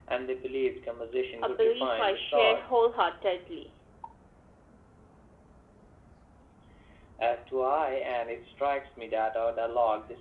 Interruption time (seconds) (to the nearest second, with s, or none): 1 s